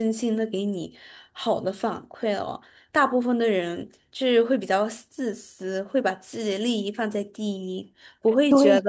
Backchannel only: No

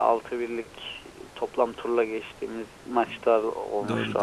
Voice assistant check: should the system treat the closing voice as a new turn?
Yes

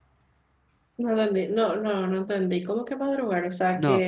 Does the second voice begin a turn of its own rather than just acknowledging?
Yes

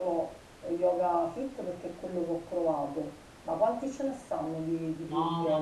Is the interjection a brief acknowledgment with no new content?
No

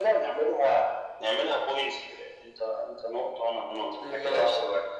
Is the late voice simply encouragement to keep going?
No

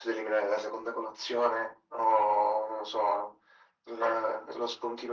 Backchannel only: Yes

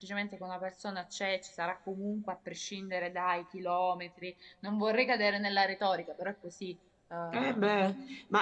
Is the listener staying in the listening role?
No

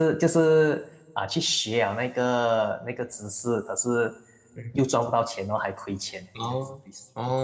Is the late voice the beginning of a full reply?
Yes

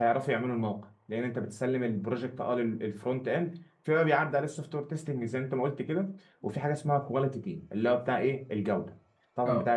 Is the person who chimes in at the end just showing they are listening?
Yes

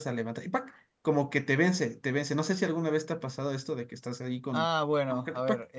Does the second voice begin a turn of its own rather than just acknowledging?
Yes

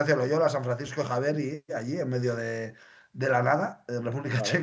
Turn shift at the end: No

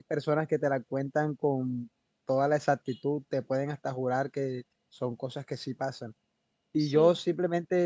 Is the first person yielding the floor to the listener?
No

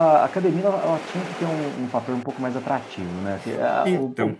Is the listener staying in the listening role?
Yes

